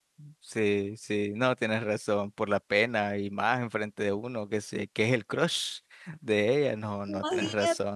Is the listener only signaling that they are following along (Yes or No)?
No